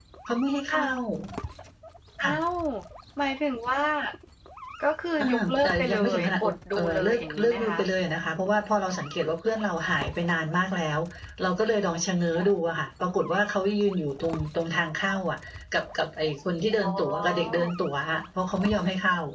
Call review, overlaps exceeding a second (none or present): present